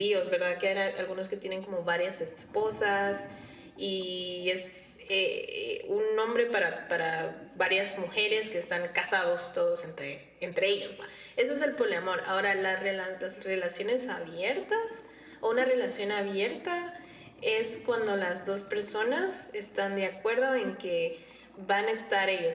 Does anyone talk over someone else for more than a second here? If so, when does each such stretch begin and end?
none

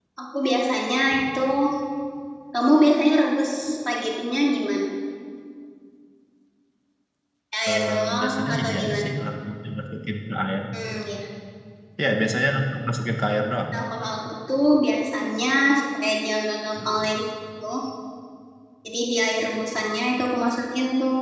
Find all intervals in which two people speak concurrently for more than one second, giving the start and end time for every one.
7.7-9.1

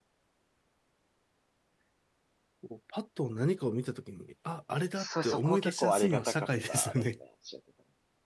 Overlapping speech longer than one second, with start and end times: 4.9-7.0

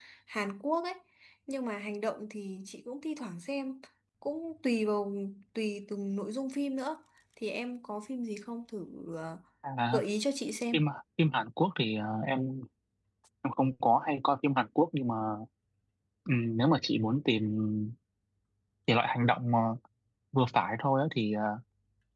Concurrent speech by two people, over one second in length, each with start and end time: none

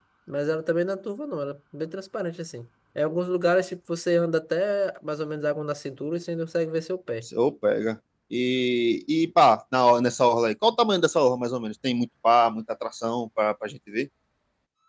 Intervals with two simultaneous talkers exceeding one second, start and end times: none

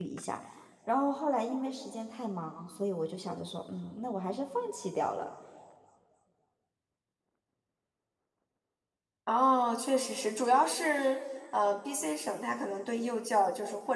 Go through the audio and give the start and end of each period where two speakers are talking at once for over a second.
none

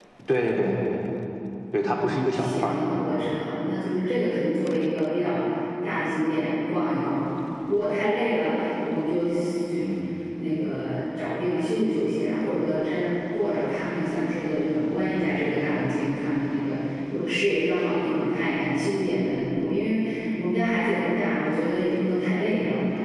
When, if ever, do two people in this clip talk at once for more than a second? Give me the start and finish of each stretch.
1.8-3.1

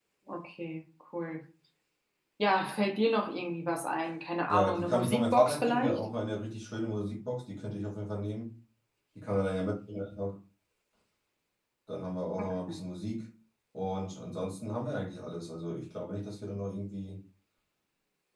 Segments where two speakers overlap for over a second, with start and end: 4.5-6.0

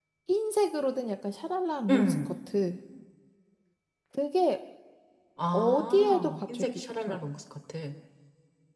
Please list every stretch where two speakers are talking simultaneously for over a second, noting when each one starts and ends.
5.5-7.2

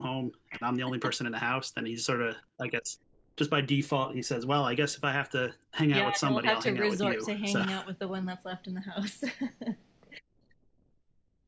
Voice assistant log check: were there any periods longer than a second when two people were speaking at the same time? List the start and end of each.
5.9-7.6

